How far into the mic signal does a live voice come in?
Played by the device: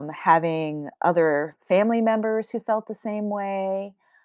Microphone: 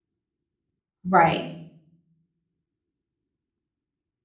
1.1 s

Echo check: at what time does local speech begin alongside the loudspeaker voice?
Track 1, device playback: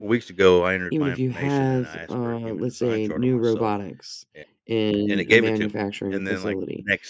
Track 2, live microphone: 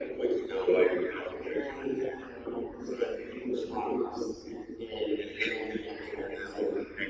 none

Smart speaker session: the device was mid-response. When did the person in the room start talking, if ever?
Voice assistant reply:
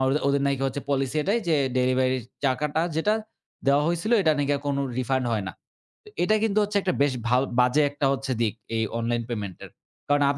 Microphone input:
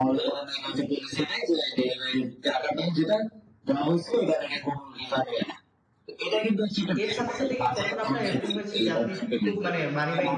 7.0 s

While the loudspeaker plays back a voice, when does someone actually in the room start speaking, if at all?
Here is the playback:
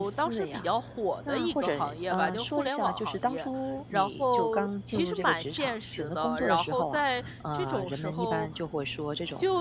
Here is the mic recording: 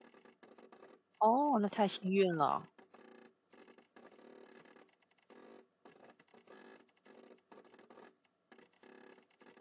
1.2 s

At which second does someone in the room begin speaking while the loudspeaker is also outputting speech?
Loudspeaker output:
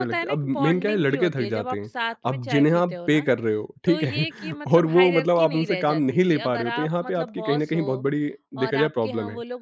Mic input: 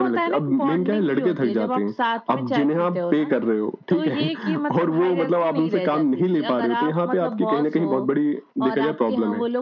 none

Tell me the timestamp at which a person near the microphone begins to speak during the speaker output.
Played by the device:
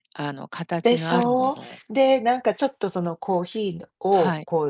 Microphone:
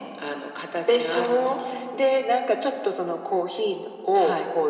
none

